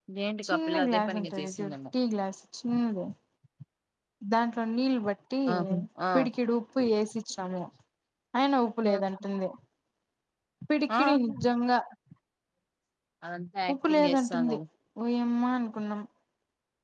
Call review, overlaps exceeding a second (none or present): present